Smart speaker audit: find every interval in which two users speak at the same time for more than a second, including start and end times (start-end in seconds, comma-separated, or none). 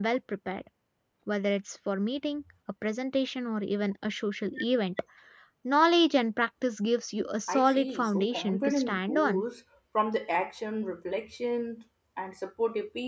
7.5-9.4